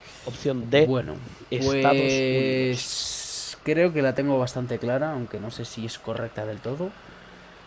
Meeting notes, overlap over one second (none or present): present